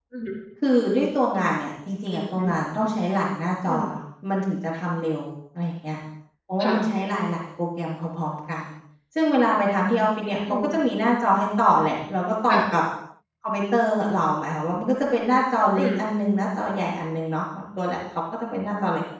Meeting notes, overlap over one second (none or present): none